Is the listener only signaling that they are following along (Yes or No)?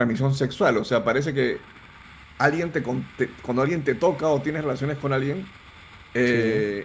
Yes